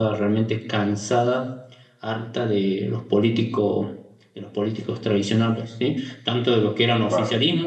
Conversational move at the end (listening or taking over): listening